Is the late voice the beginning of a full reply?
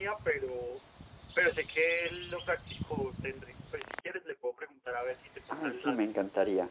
Yes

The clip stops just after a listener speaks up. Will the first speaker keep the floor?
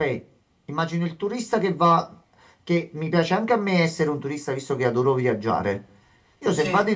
Yes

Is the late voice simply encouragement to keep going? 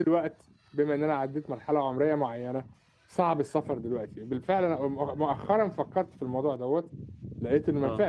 Yes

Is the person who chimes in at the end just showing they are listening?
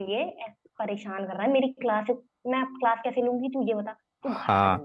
No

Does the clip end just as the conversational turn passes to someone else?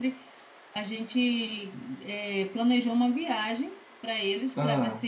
No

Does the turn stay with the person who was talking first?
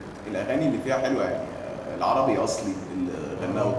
Yes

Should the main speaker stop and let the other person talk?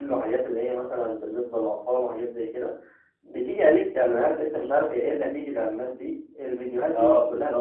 No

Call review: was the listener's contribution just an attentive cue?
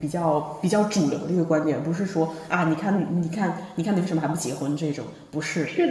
No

